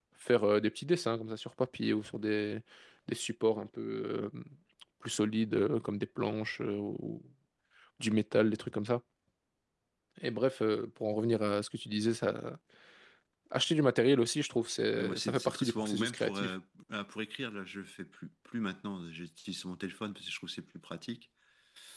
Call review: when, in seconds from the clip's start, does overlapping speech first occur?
14.9 s

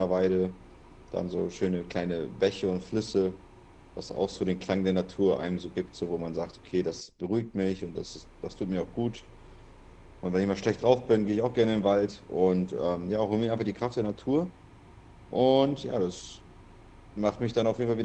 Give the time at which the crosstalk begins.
none

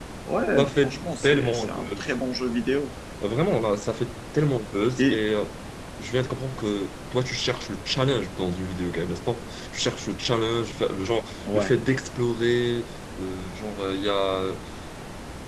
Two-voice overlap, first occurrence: 0.6 s

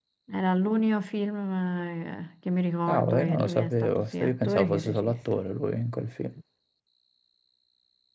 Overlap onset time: 2.9 s

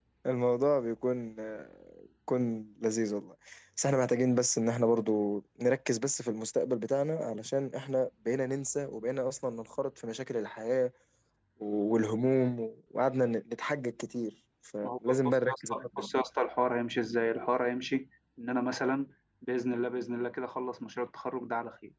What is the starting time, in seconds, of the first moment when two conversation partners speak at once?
14.8 s

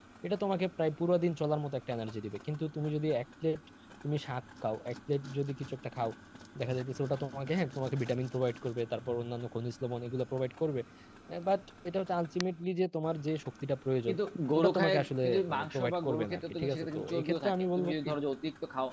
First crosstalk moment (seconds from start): 14.6 s

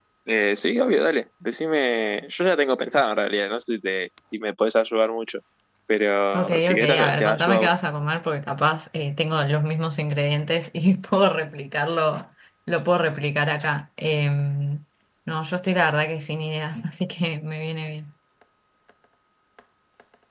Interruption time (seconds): 6.3 s

